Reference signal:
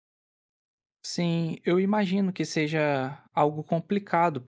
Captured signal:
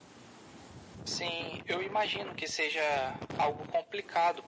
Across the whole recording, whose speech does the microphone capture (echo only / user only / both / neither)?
echo only